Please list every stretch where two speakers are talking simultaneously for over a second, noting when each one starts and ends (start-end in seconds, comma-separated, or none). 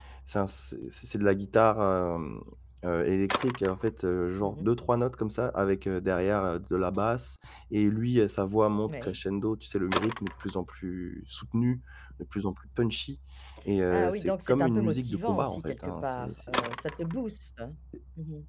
13.9-16.6